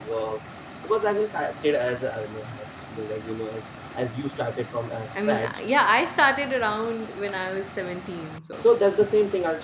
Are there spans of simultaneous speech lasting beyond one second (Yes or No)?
No